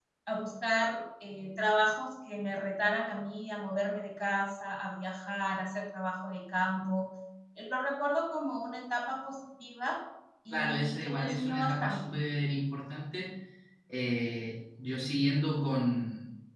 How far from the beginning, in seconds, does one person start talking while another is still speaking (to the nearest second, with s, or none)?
11 s